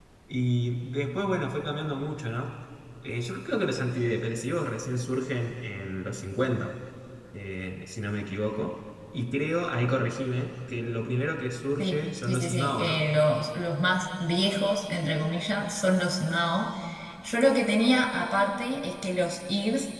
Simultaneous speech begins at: 12 s

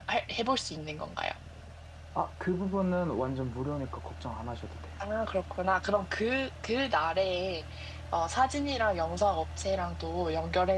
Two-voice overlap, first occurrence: none

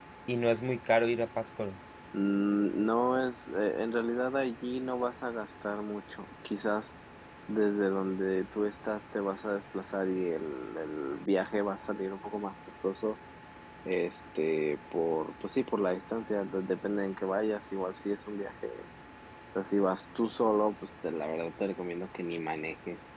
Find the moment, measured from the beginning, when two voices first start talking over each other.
none

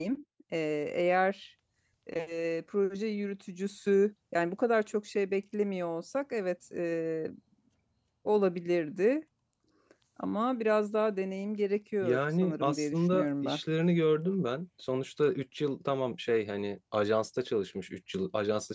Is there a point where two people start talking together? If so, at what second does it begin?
12 s

